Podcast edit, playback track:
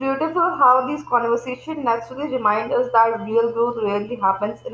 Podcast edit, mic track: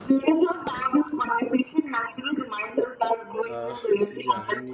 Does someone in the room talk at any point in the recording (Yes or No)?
Yes